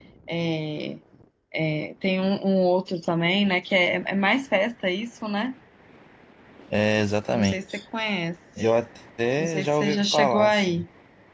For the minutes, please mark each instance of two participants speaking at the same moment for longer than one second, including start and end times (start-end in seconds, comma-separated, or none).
9.4-10.8